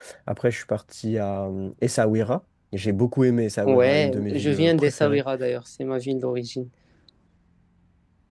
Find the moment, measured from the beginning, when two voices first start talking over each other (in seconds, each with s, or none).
3.6 s